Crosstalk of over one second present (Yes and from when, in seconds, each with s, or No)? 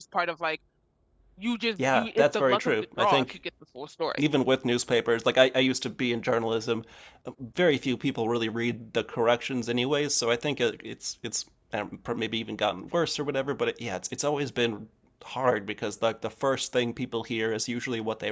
Yes, from 1.8 s